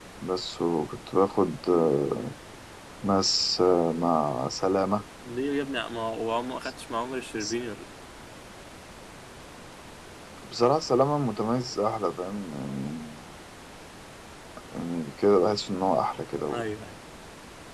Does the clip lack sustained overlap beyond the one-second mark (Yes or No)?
Yes